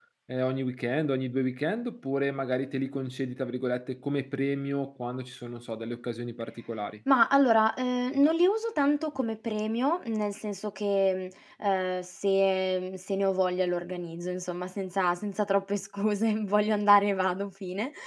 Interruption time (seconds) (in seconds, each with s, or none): none